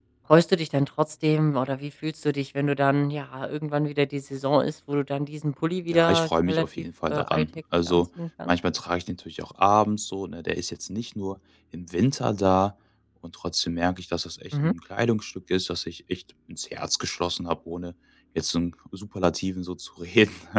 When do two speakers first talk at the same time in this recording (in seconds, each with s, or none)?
5.9 s